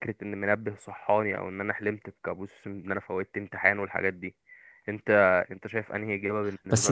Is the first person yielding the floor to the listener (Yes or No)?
Yes